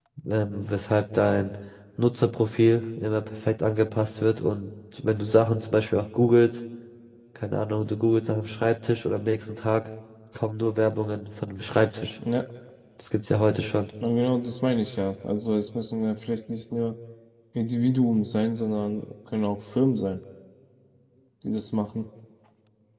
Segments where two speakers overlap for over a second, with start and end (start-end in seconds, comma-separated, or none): none